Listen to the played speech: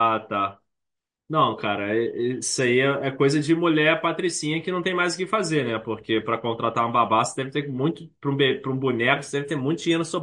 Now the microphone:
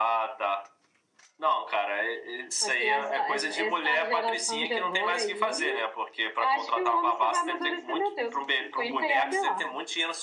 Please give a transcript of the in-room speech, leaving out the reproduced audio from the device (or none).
Só que essa, essa, essa geração de agora aí, acho que o homem só vai amadurecer, meu Deus, com 50 e olha lá.